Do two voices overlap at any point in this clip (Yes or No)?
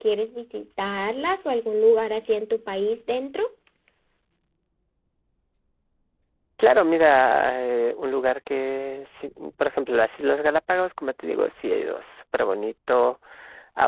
No